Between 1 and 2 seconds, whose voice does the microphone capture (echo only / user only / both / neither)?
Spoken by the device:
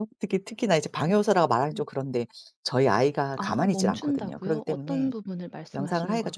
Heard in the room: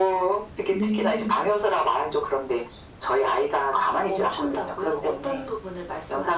both